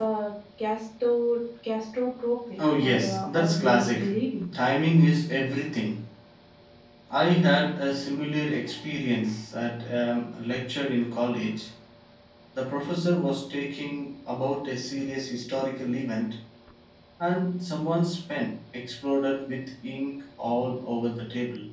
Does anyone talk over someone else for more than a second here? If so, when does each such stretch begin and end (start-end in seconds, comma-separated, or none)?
2.6-4.0